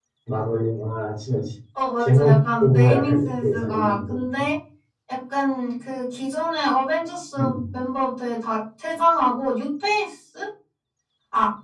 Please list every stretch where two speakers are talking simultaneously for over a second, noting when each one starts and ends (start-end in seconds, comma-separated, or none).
2.0-4.2